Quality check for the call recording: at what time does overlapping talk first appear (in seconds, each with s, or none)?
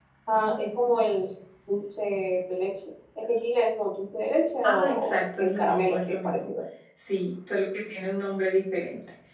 4.6 s